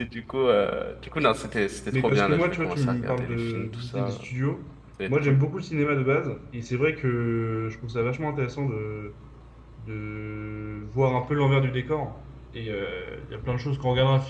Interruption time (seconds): 1.9 s

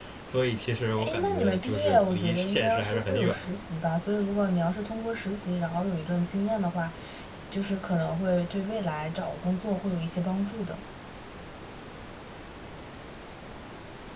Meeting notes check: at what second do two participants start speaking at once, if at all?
1.0 s

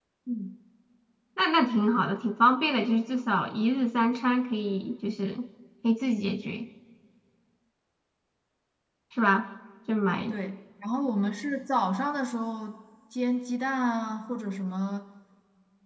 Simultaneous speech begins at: none

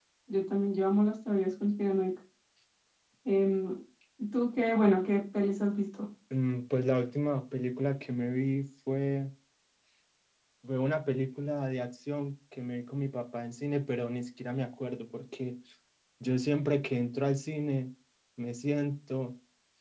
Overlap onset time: none

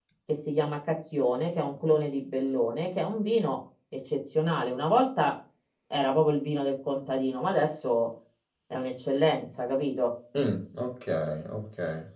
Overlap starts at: none

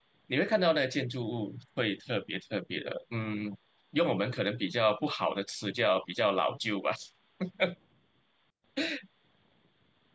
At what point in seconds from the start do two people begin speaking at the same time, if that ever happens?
none

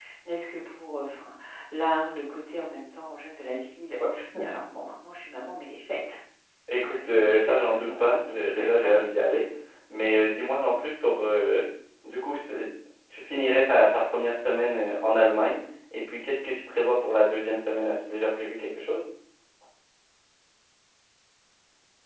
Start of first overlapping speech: 6.8 s

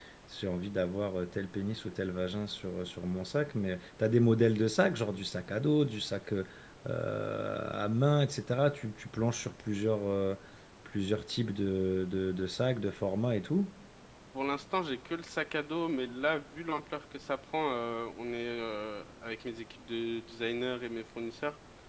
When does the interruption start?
none

